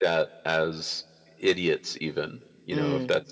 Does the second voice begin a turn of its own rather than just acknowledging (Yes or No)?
No